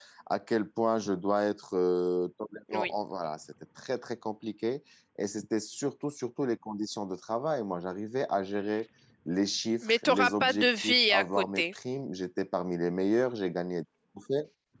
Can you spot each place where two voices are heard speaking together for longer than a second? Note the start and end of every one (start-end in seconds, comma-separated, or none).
9.8-11.6